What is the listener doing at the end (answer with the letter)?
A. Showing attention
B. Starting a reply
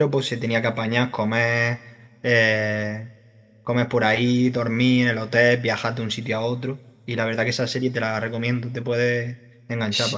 B